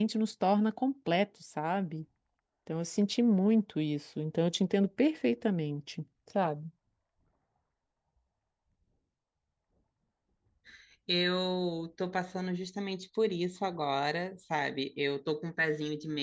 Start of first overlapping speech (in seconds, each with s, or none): none